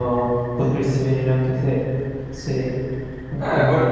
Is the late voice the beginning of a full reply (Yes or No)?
Yes